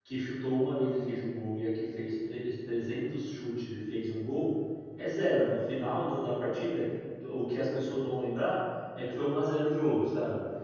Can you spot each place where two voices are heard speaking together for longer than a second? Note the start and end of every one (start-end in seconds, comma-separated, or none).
none